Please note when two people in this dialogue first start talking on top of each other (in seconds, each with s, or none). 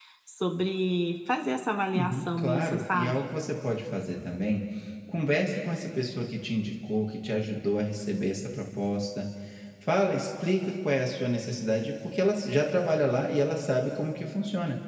1.9 s